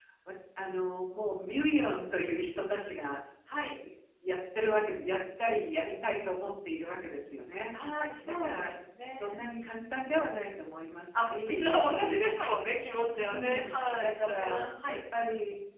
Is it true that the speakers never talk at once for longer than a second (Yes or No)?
No